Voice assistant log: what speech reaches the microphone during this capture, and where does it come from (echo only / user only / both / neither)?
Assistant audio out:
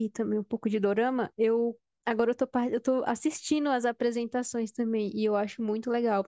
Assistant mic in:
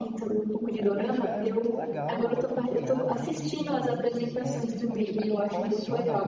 both